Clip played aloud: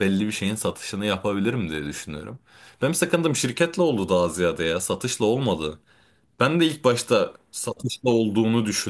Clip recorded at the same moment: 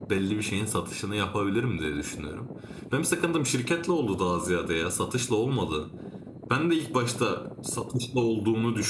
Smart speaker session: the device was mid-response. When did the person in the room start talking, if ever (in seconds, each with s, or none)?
none